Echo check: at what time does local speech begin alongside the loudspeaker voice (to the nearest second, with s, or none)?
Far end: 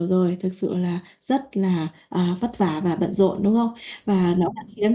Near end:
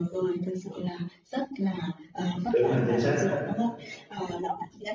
3 s